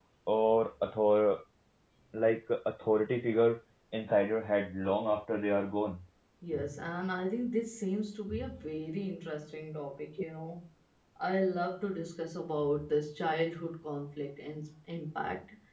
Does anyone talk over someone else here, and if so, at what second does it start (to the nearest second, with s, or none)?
none